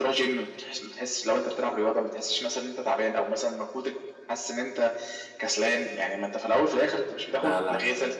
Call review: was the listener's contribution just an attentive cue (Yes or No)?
Yes